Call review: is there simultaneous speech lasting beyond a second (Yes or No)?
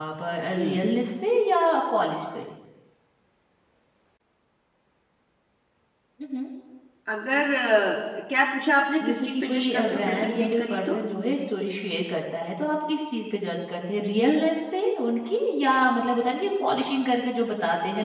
Yes